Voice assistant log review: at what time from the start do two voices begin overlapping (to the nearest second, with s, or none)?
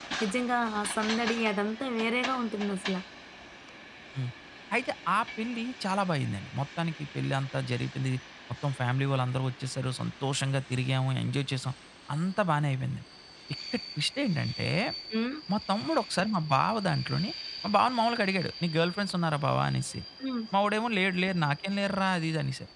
none